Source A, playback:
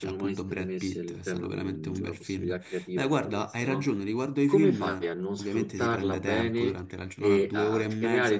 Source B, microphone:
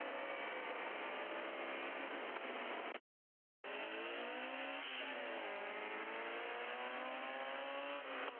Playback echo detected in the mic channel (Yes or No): No